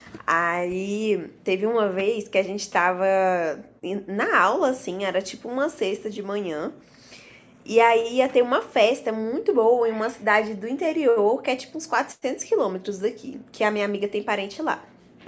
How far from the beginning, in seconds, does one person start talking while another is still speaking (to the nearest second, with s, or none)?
none